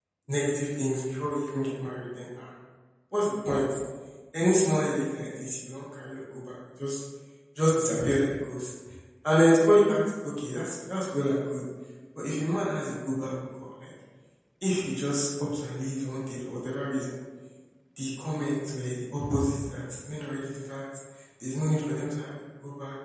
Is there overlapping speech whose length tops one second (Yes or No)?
No